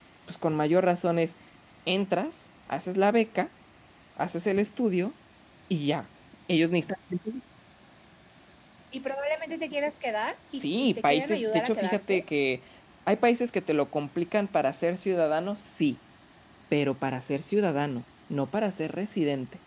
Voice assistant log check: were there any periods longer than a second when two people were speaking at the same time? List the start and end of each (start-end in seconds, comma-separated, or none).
10.5-12.2